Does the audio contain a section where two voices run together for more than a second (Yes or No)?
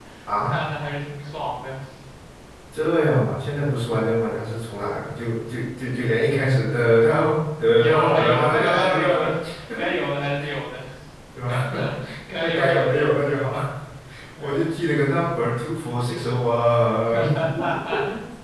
Yes